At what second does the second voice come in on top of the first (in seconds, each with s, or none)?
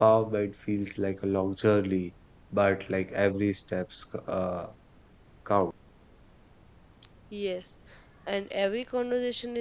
none